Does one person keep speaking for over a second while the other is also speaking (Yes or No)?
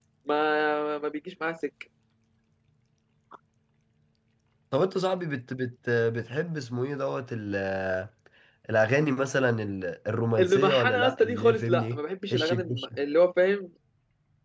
Yes